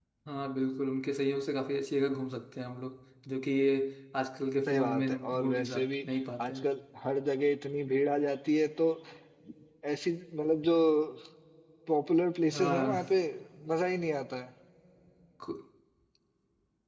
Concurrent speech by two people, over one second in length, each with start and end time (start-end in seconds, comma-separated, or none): 4.7-5.9